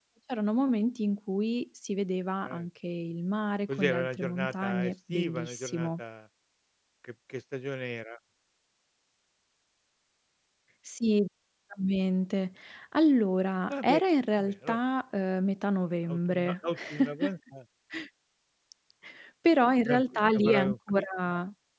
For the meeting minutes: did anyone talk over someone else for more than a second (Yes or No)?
Yes